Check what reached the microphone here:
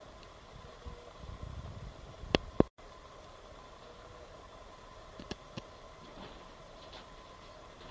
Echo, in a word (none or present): none